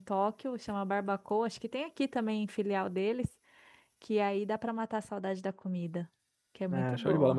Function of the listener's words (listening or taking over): taking over